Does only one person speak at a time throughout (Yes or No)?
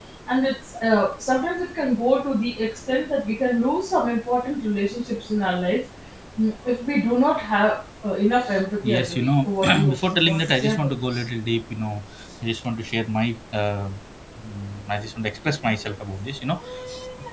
No